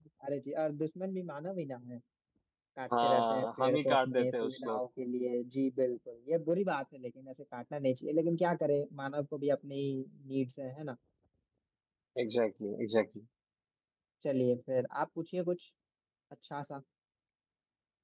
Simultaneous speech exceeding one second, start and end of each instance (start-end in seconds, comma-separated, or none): 3.0-4.8